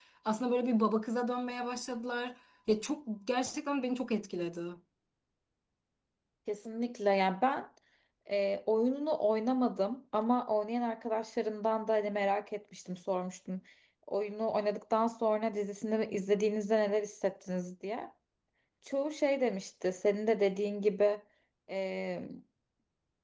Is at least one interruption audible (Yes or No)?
No